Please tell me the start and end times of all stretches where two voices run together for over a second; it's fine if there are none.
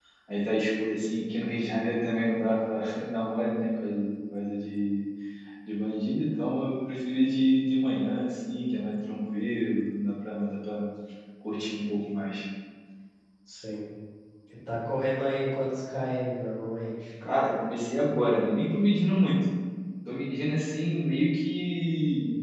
none

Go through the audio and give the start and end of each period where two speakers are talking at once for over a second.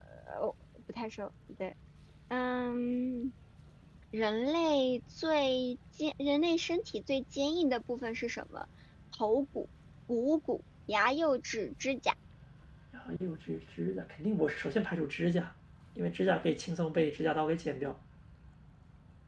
none

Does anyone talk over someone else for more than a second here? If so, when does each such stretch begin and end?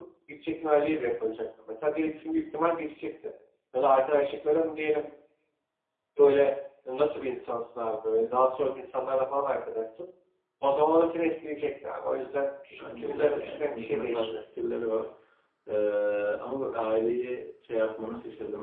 12.8-14.4

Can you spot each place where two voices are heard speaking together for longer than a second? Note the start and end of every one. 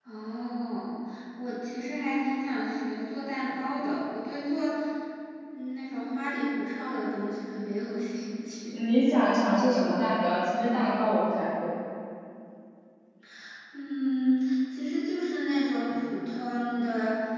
none

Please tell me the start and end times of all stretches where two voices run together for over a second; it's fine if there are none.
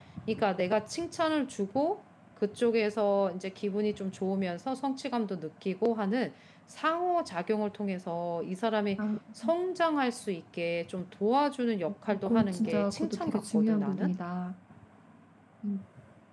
12.1-14.1

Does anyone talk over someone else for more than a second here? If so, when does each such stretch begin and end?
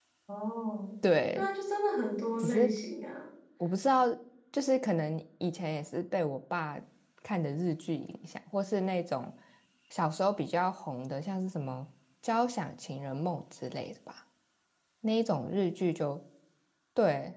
none

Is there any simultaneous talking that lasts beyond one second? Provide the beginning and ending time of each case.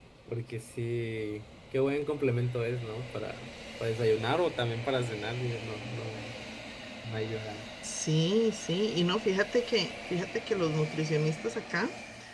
none

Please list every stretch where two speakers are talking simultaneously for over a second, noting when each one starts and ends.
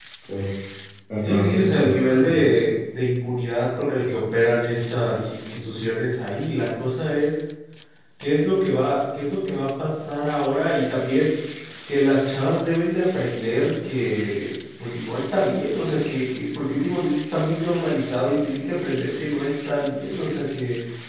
1.2-2.5

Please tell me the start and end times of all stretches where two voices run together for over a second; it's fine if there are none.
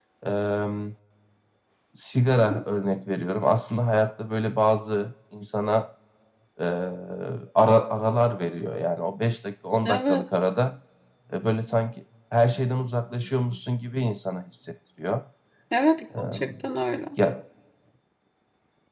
none

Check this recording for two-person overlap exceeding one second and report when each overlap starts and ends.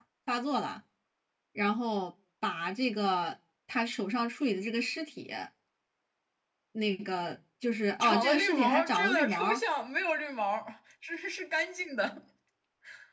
8.0-9.6

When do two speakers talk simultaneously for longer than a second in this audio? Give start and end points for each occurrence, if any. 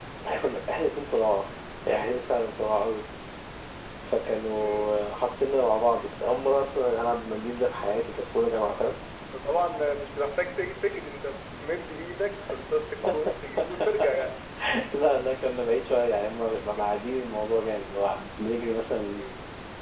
none

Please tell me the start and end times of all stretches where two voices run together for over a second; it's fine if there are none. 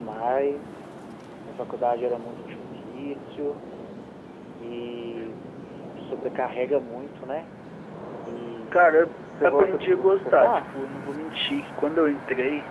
9.4-10.8

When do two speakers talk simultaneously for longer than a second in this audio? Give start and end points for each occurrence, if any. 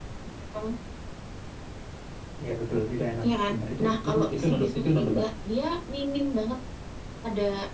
3.2-5.2

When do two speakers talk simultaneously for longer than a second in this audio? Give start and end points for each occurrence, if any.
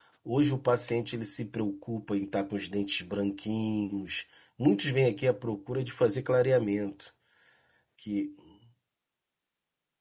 none

